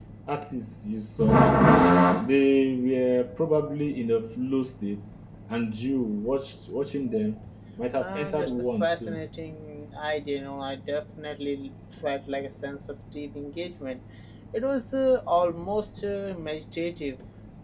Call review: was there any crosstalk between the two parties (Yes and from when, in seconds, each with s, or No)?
Yes, from 8.0 s